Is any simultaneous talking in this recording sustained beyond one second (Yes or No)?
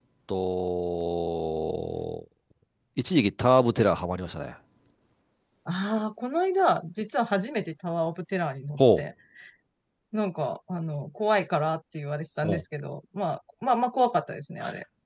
No